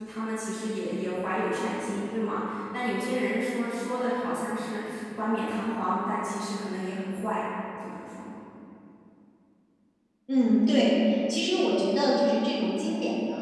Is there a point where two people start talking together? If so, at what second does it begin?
none

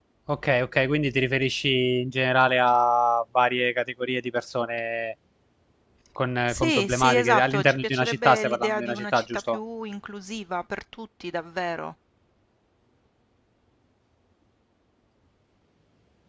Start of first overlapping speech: 6.5 s

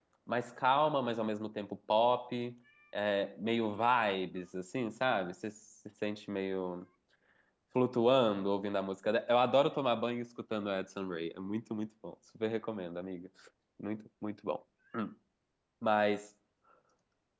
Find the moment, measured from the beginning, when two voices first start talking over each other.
none

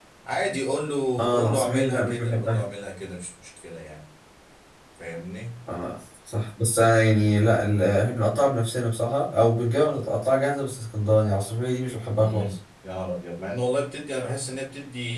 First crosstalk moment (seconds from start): 1.2 s

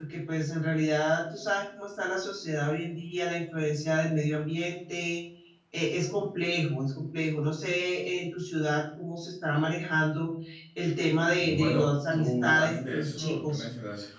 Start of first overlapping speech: 11.4 s

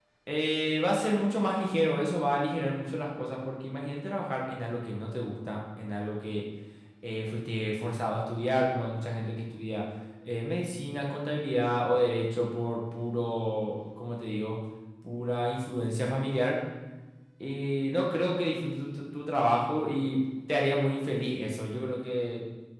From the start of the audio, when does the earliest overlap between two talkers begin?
none

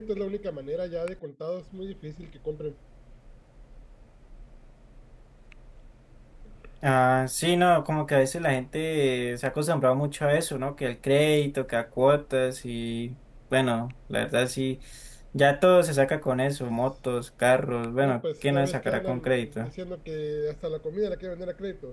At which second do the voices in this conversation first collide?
18.0 s

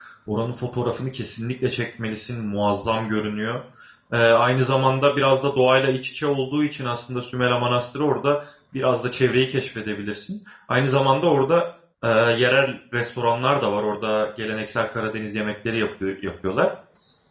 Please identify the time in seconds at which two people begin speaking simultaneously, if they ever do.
none

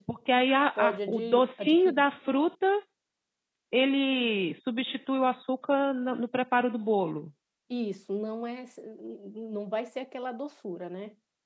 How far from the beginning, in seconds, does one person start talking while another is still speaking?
0.8 s

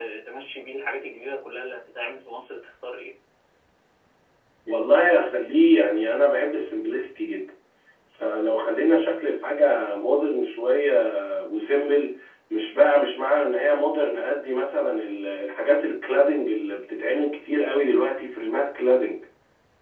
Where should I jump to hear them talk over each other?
none

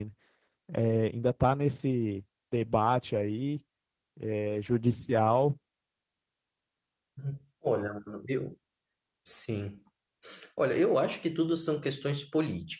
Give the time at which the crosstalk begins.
none

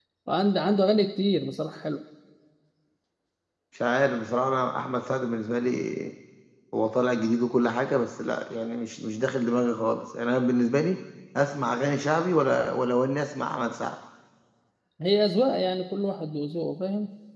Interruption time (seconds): none

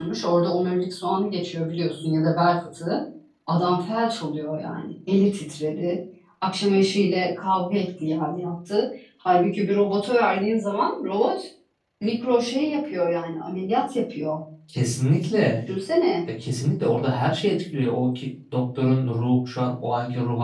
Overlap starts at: none

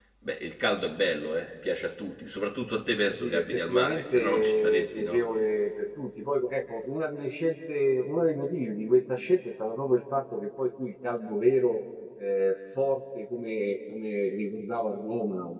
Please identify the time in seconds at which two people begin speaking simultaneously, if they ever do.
3.2 s

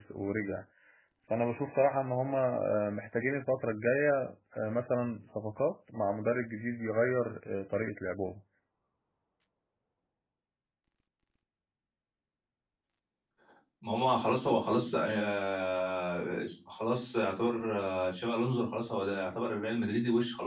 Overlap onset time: none

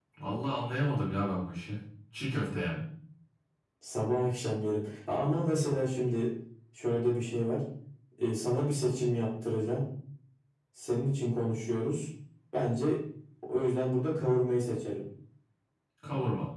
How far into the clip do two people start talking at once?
none

